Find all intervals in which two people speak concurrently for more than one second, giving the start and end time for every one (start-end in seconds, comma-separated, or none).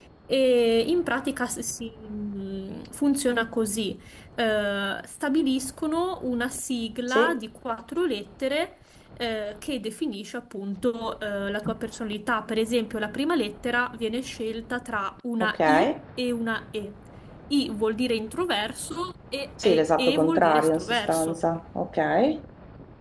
19.6-21.4